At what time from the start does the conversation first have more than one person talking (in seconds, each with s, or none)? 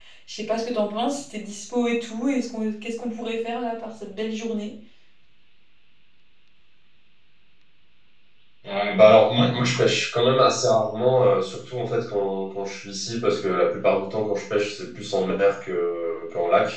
none